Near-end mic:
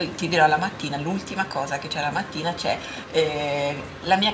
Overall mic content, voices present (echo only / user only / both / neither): user only